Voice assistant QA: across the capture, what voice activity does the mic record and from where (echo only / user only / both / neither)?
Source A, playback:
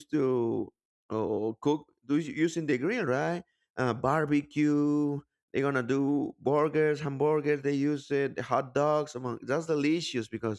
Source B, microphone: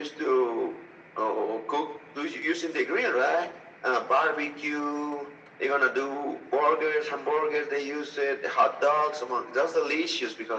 echo only